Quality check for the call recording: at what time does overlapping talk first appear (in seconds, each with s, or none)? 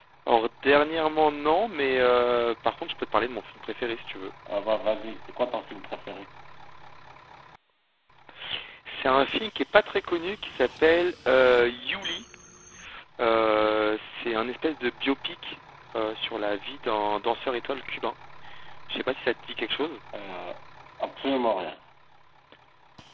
none